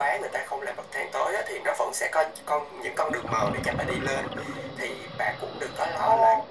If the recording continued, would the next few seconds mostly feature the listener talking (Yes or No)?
No